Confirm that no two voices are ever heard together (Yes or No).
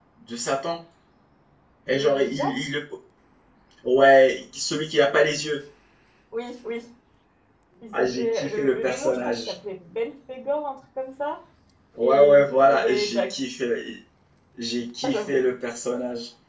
No